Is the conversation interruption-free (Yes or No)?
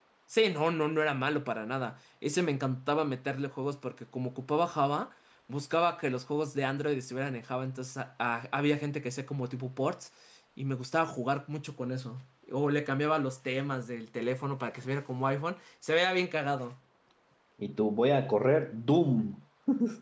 Yes